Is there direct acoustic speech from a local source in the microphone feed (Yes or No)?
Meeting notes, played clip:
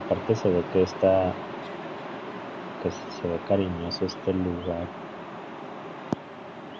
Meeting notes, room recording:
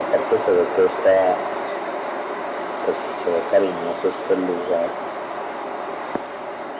No